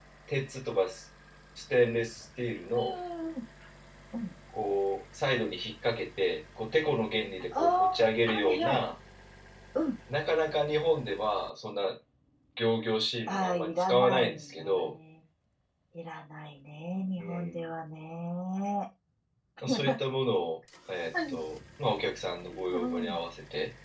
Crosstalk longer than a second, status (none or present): present